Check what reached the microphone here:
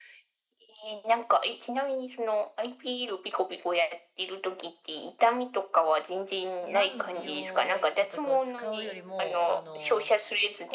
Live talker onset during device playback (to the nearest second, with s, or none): 7 s